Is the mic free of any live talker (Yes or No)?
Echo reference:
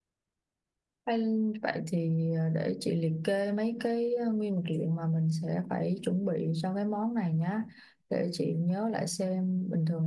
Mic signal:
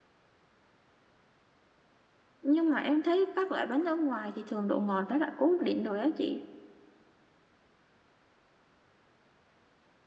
No